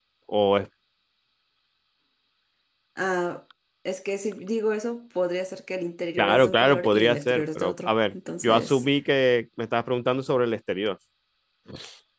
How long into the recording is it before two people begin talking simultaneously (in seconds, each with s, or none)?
6.2 s